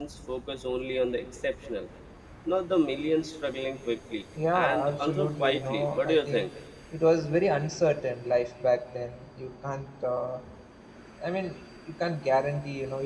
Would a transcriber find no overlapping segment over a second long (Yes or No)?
No